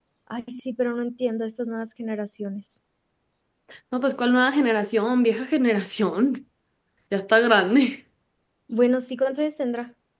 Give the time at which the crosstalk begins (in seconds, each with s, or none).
none